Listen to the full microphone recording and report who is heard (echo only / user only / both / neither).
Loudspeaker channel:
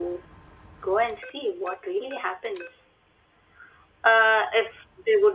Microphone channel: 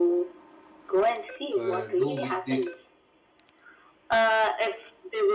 both